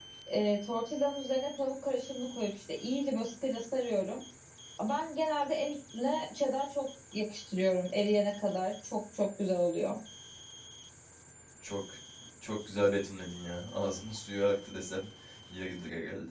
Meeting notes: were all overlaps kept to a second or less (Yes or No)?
Yes